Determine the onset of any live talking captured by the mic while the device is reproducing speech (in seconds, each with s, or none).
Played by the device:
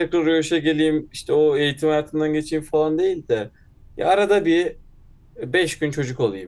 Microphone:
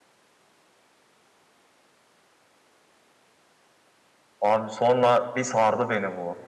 4.4 s